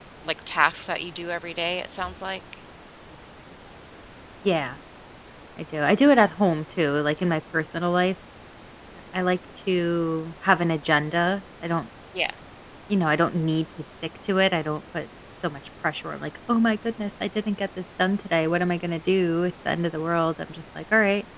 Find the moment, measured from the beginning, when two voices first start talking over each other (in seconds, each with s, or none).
none